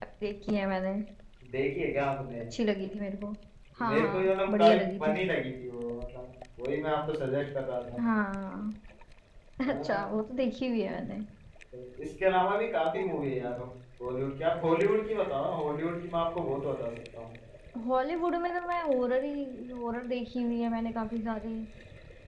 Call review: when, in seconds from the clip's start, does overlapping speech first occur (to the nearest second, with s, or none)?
4 s